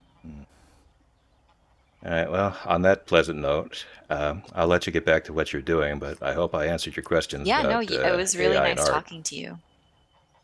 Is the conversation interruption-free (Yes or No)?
No